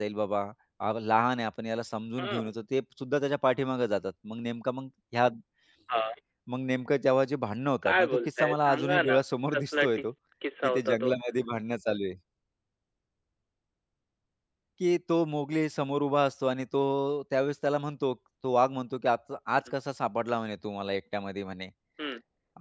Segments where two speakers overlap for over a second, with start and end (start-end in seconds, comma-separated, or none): 7.8-9.2